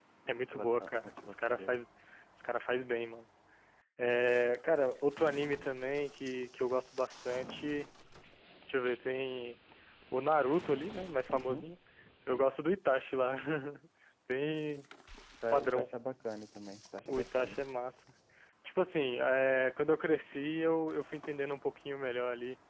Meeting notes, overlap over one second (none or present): present